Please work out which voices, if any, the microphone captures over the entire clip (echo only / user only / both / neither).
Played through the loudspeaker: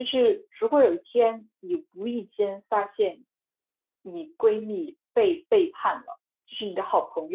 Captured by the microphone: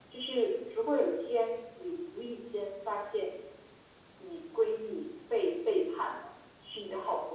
echo only